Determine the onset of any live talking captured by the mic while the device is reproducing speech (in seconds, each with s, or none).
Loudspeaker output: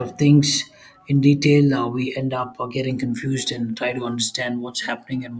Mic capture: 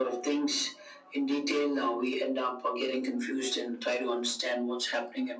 none